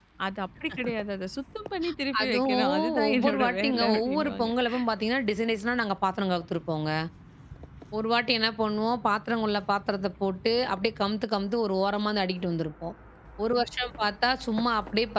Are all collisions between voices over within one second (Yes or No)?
No